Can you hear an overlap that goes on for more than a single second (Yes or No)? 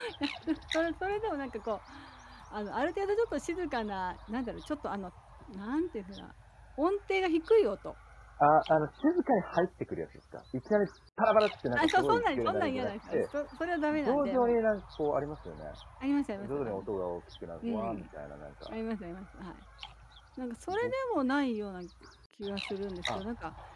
Yes